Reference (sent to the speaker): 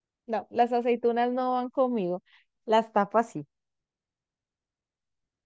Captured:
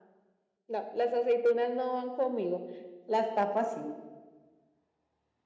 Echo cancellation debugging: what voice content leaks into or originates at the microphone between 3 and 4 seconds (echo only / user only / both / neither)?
echo only